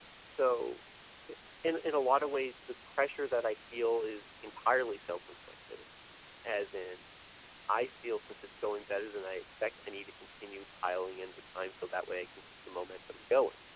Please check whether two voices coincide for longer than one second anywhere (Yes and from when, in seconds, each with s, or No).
No